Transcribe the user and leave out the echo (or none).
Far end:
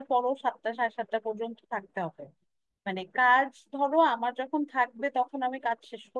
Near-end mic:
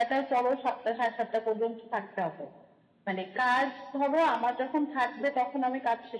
none